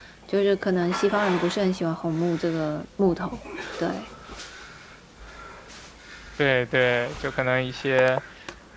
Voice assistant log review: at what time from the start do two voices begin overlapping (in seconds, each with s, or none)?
none